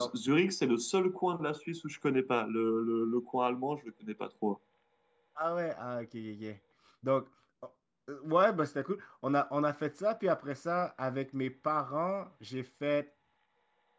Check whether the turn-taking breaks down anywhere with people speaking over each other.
No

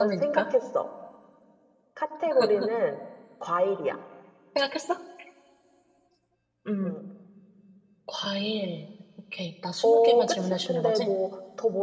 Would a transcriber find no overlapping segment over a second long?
No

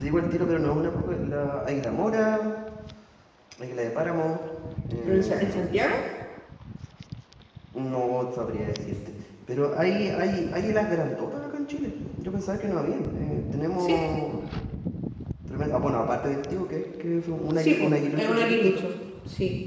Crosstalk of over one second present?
Yes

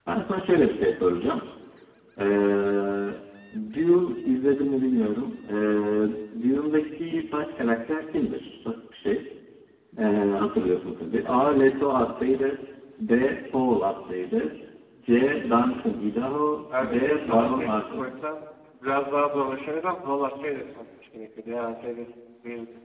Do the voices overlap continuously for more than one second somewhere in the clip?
Yes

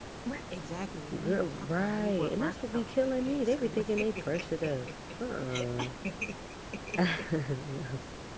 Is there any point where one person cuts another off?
Yes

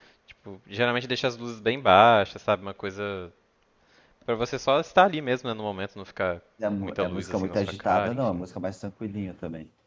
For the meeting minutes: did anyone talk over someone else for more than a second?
Yes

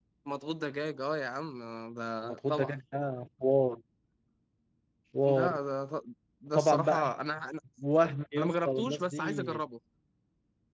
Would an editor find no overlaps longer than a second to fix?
No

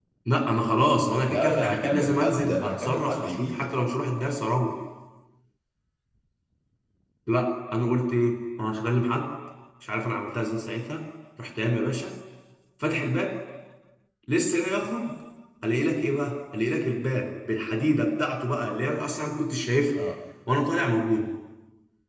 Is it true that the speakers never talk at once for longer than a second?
No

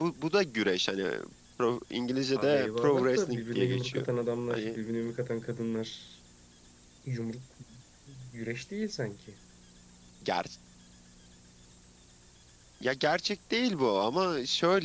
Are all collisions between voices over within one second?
No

